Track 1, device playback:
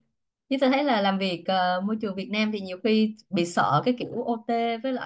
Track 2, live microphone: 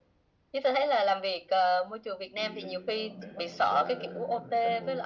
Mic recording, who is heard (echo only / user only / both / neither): both